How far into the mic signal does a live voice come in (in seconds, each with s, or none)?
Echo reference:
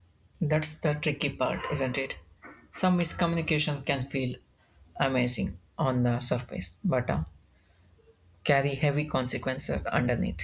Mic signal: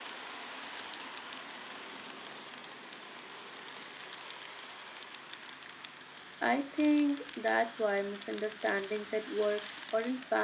6.4 s